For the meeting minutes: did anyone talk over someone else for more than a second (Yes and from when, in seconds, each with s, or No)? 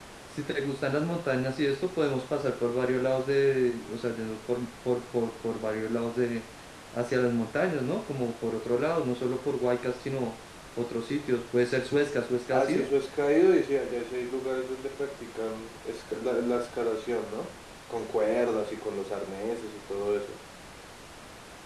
No